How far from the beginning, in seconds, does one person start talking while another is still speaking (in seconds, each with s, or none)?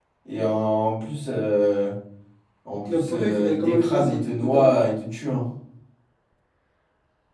2.9 s